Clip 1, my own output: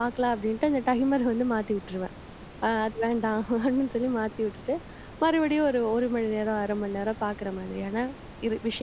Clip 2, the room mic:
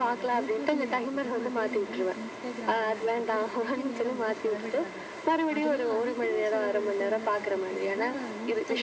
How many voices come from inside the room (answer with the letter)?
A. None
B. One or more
B